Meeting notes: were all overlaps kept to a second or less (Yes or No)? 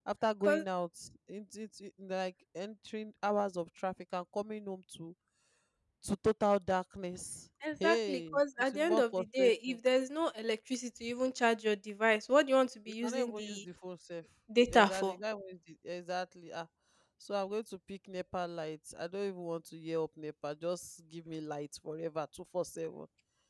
No